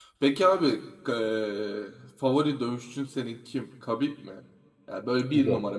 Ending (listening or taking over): listening